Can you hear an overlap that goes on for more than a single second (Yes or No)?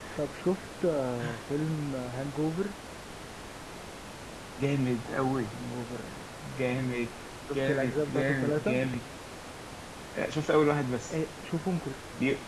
Yes